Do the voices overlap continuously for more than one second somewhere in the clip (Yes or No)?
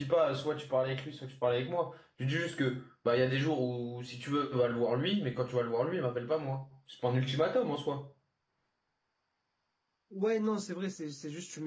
No